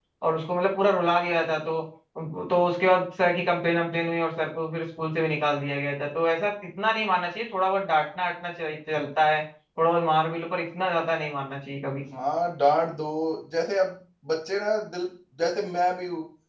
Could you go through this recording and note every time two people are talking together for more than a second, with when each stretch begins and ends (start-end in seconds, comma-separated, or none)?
none